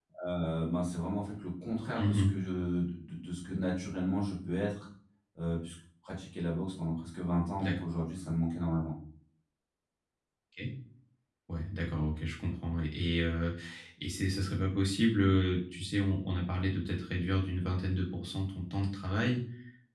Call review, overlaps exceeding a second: none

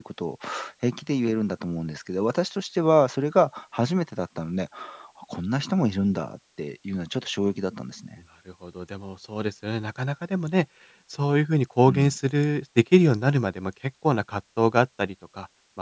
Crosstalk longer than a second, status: none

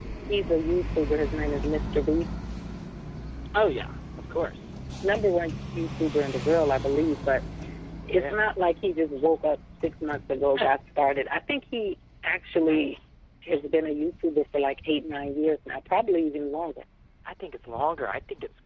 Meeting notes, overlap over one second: none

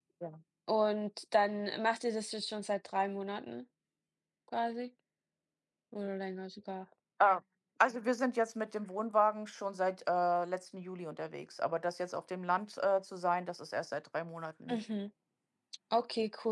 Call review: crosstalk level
none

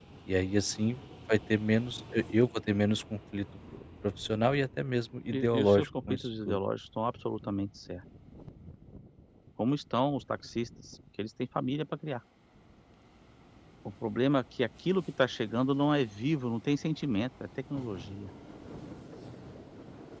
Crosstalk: present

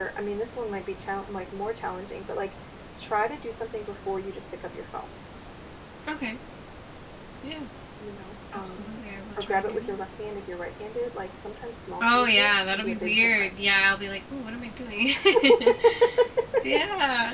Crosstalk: present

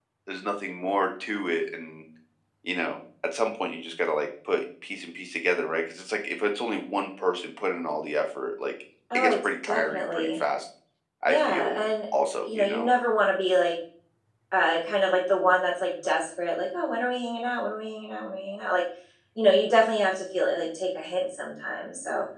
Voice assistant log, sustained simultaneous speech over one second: present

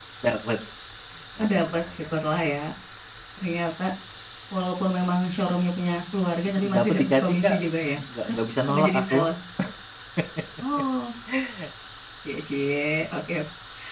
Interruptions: present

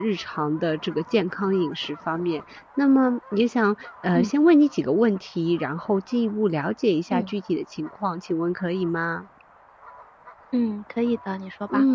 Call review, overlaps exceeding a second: none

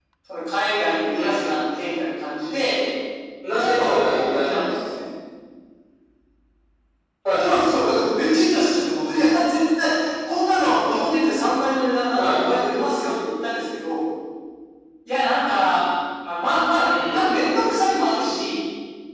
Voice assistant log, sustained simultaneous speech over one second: present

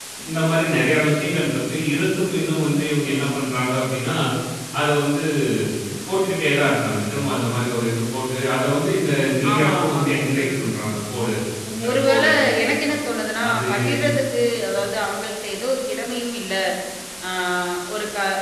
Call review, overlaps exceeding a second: present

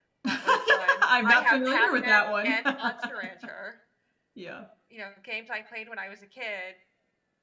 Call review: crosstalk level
present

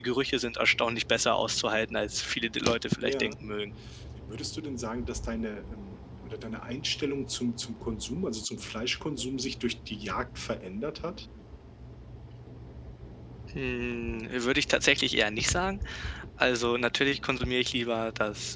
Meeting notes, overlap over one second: none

